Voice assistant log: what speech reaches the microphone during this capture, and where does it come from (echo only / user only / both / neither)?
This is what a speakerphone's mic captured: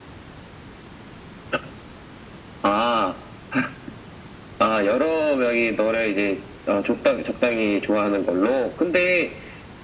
echo only